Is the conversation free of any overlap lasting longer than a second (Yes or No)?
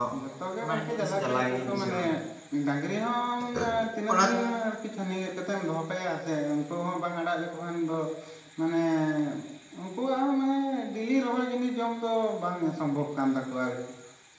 No